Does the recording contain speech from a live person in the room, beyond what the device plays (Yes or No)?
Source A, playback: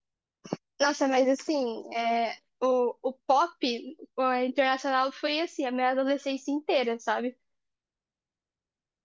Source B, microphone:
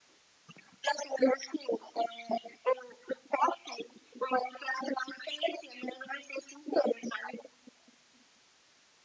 No